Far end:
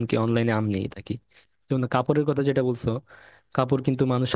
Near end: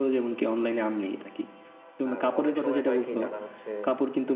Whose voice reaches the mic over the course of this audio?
both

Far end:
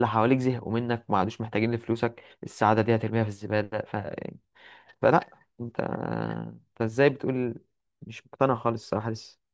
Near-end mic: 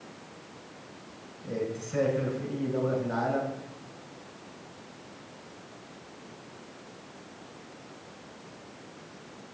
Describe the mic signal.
user only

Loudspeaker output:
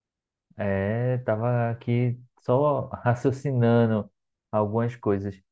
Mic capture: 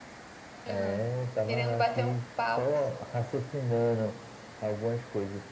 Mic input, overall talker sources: both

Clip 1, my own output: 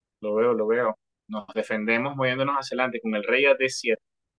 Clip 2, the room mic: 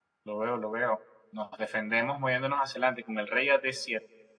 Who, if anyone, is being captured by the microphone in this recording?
echo only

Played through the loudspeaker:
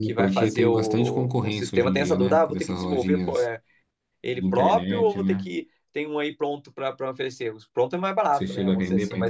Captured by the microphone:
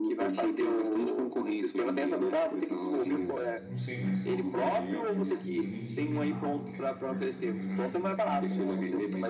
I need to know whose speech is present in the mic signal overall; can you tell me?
both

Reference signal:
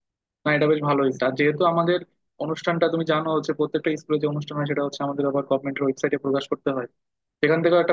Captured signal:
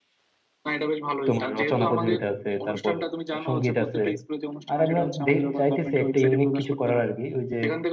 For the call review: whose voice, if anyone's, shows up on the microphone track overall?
both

